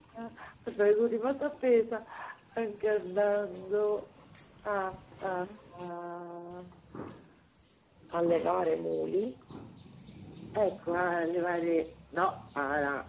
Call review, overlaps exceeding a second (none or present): none